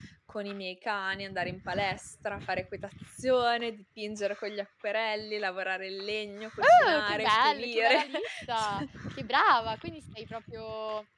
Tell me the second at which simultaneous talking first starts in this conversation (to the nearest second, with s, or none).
7 s